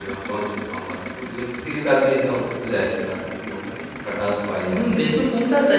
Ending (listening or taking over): taking over